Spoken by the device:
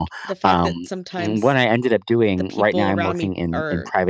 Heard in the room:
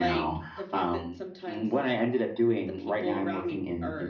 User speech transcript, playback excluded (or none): none